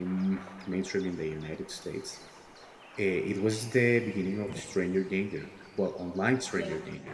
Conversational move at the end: listening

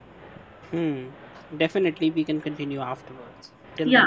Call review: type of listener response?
taking over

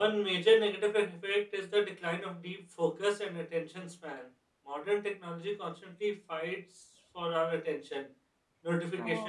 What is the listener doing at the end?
listening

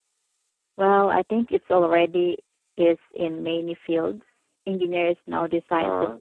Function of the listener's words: listening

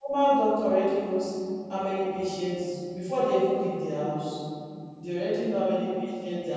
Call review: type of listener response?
listening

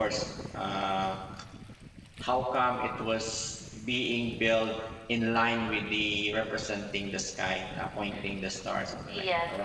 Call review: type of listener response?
taking over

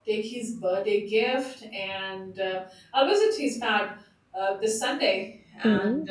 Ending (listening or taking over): listening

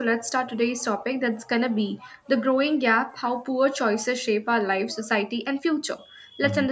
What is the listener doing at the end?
listening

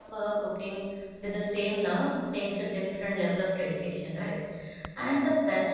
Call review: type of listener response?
listening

